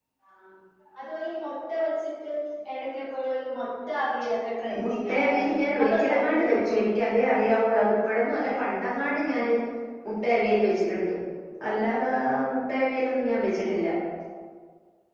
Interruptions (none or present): present